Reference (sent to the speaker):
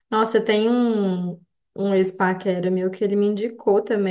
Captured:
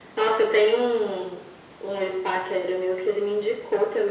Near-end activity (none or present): none